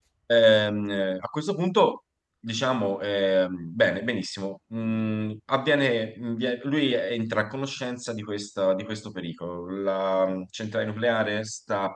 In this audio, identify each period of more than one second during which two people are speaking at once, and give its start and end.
none

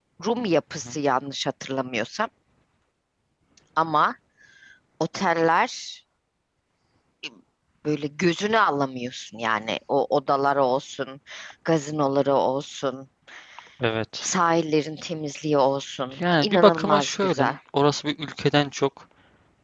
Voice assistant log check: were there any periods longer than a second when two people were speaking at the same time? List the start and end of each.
16.2-17.6

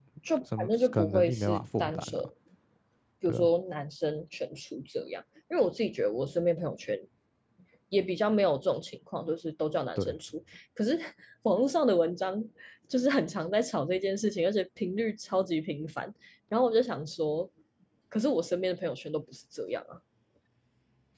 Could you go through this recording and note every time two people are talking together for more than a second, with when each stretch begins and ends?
0.6-2.2

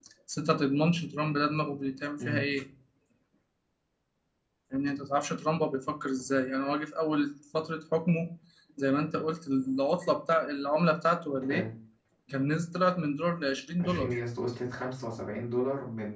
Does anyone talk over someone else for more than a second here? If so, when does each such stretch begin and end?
none

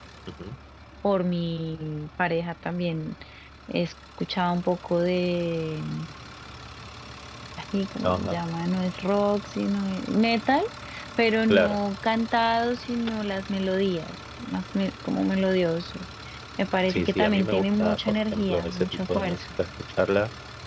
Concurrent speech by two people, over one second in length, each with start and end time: 16.9-19.4

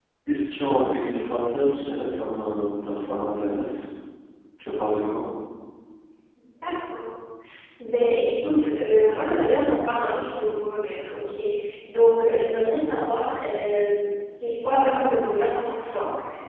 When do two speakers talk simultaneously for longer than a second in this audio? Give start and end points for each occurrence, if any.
none

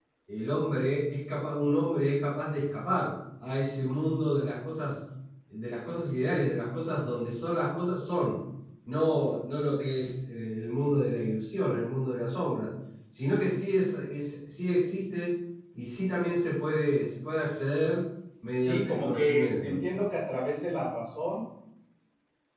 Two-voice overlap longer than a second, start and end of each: 18.6-19.8

